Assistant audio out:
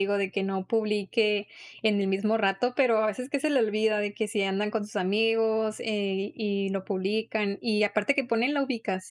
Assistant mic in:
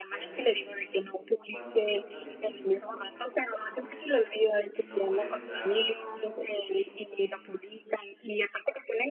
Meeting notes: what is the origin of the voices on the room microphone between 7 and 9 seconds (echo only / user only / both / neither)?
both